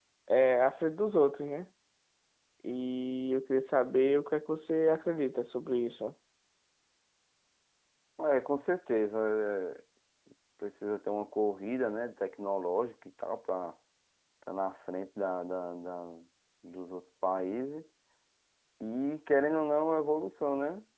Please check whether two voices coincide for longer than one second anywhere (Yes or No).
No